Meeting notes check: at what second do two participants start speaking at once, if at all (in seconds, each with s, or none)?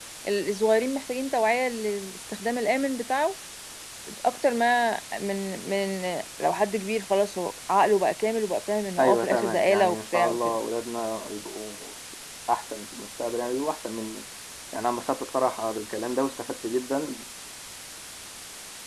9.0 s